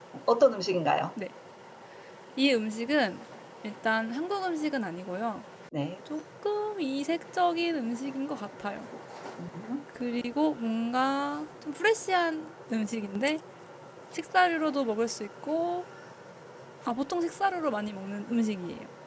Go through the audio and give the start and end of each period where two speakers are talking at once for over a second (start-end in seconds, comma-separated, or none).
none